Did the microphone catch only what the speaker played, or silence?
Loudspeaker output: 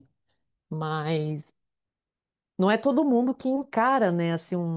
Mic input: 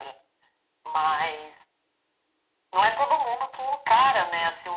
Yes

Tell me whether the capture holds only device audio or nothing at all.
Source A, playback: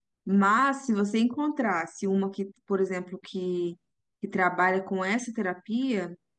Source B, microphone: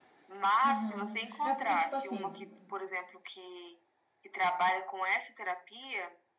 No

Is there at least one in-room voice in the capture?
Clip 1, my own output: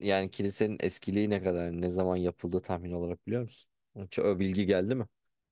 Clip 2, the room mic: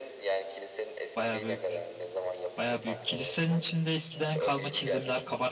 Yes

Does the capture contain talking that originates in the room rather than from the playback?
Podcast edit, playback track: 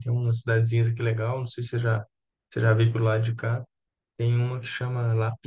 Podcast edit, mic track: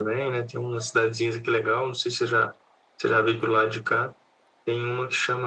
No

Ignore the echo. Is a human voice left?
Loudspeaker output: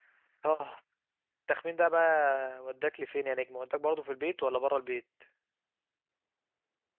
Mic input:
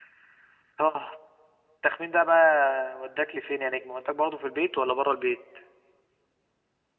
No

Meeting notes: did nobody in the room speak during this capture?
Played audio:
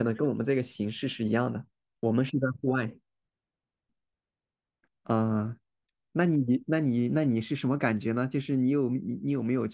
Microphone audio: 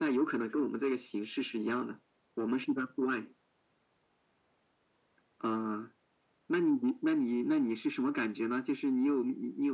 Yes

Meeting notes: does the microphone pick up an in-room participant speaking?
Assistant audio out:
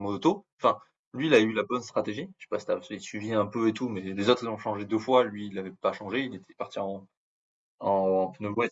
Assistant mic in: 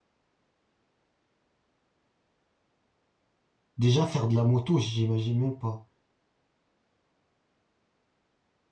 Yes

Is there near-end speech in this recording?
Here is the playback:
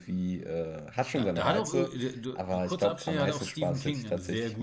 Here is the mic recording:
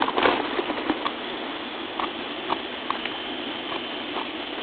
No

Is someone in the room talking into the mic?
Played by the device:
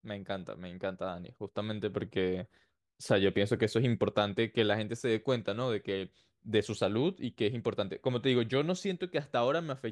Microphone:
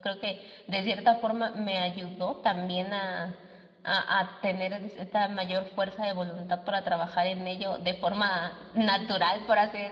Yes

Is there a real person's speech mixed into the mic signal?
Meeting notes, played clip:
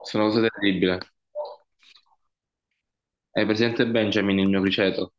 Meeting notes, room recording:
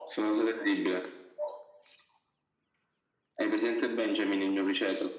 No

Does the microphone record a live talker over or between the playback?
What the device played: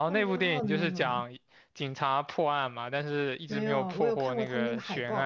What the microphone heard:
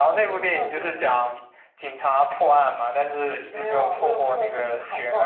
No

